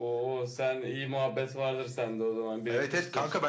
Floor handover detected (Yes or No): Yes